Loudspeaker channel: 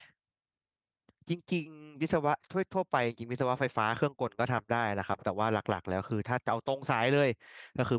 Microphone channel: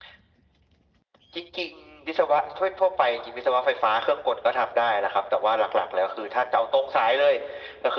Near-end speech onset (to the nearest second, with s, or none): none